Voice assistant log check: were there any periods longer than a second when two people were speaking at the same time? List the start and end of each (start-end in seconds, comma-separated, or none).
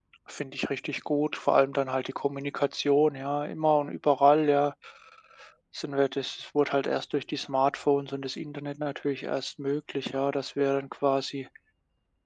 none